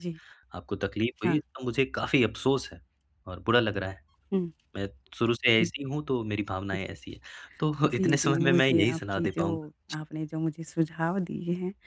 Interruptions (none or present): present